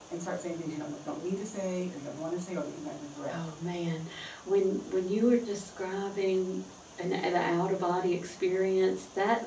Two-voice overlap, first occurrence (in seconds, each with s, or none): none